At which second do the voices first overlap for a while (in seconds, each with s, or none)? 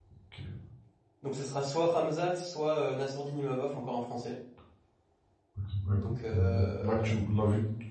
5.9 s